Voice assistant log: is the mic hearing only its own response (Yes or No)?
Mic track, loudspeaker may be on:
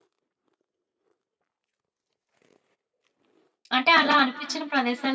No